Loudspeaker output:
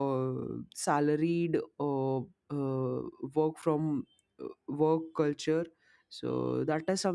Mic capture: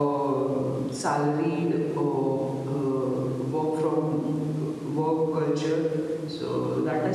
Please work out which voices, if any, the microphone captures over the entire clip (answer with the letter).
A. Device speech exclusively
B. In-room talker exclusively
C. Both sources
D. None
A